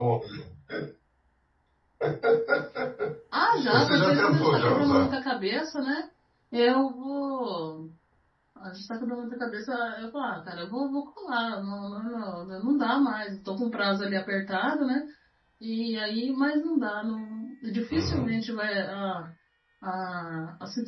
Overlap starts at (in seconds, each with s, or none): 3.7 s